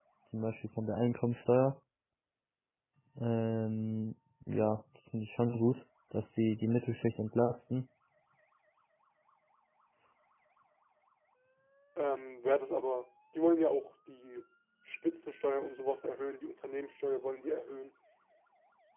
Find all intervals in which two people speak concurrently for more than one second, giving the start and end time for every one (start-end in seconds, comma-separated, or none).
none